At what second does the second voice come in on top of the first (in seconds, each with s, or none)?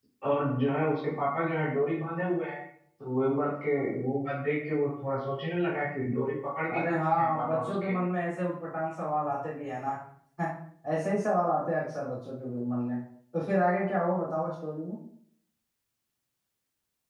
6.7 s